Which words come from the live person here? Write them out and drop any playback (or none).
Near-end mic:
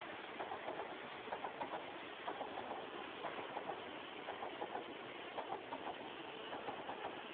none